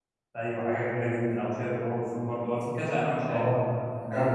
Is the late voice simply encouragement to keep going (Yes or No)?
No